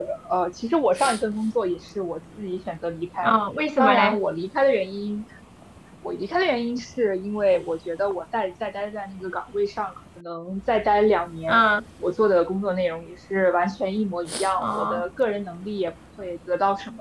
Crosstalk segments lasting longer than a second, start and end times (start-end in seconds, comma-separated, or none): none